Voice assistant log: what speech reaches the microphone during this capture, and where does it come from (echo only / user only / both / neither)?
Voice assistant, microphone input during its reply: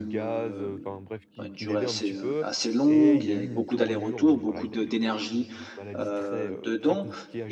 both